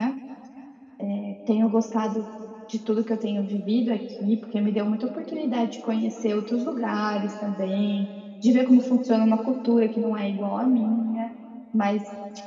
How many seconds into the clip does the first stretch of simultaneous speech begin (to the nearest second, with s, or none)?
none